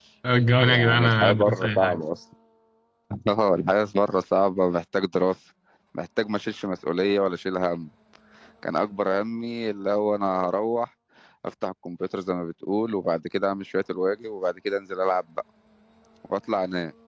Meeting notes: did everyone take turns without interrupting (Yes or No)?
No